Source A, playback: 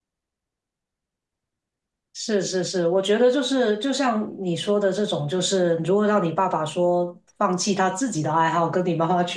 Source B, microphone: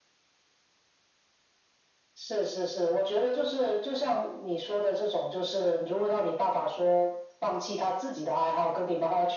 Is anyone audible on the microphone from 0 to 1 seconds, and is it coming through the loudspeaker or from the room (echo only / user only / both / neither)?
neither